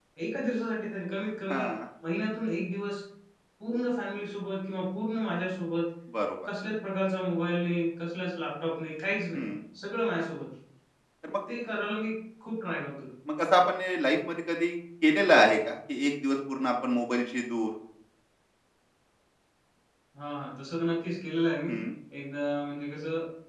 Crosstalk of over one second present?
No

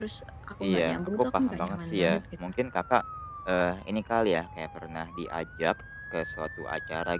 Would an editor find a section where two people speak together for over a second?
Yes, from 0.6 s

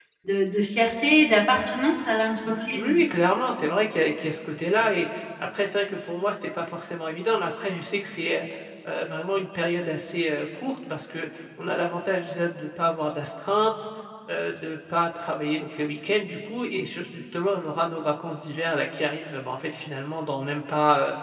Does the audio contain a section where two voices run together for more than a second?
No

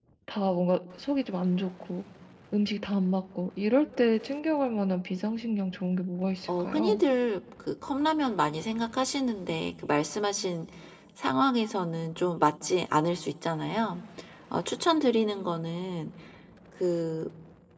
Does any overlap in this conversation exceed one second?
No

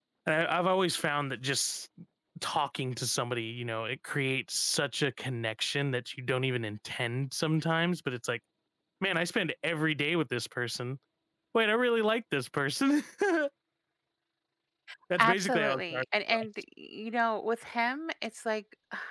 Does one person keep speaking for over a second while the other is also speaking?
Yes, from 15.2 s

